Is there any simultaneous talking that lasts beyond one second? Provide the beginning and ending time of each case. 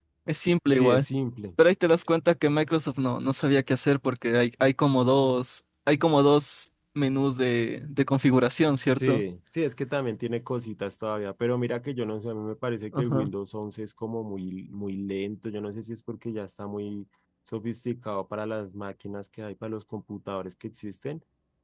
none

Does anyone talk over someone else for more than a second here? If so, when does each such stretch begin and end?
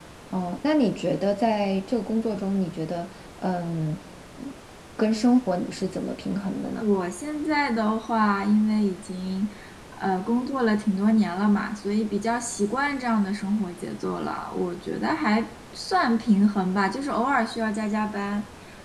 none

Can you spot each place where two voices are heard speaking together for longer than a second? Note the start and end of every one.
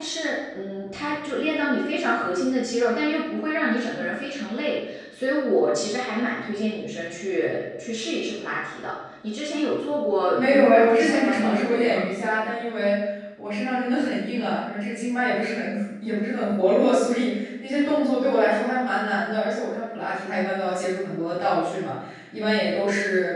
10.3-12.0

